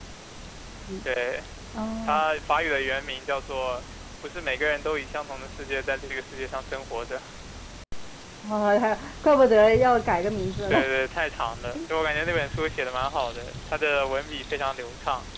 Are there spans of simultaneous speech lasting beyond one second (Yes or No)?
No